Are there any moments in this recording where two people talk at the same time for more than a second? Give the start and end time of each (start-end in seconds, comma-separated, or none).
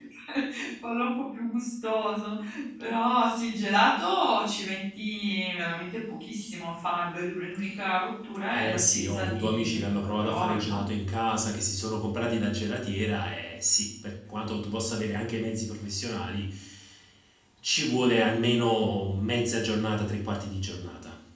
8.5-10.8